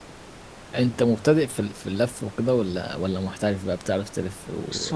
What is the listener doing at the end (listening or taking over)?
taking over